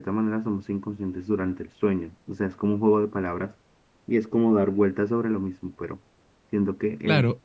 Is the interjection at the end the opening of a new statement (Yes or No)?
Yes